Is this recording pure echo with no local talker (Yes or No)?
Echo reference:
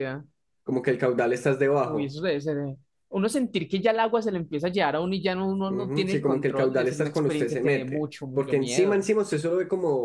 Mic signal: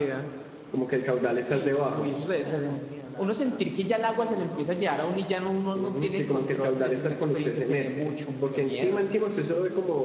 No